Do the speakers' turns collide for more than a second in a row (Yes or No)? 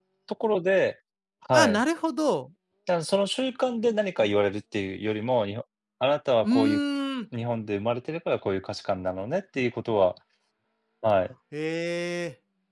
No